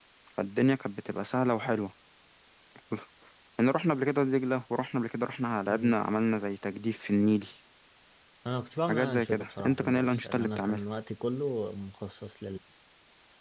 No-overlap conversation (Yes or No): No